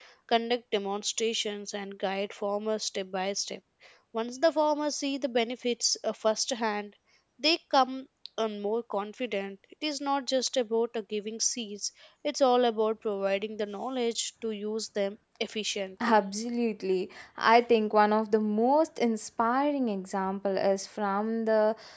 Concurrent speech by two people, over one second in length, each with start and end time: none

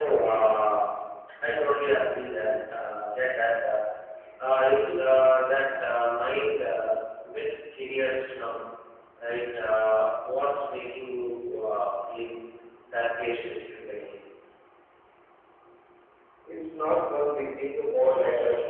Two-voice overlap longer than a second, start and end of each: none

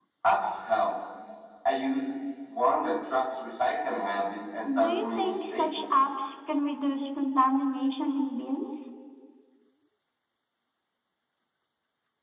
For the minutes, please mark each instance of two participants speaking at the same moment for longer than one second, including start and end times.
4.6-5.9

